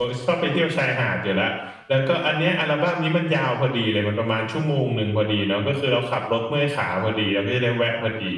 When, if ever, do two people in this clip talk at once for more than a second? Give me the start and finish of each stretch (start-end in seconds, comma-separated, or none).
none